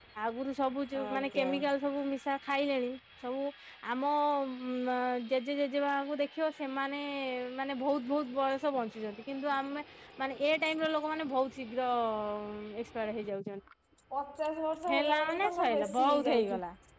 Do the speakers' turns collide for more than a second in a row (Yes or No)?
Yes